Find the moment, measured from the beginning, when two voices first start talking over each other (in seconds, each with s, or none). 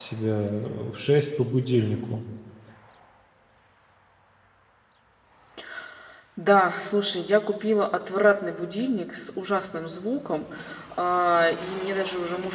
none